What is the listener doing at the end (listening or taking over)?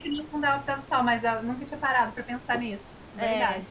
taking over